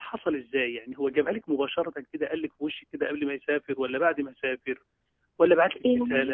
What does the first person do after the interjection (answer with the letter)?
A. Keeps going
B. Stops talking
A